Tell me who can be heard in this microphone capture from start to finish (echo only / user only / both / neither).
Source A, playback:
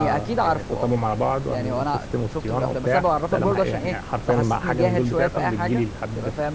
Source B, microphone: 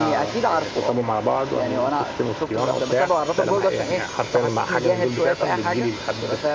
echo only